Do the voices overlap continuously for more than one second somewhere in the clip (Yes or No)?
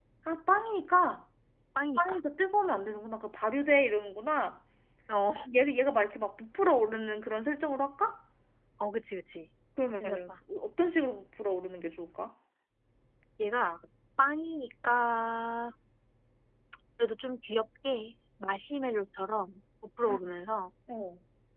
No